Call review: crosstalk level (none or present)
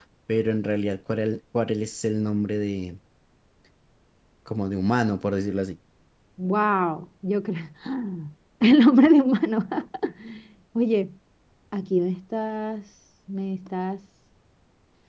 none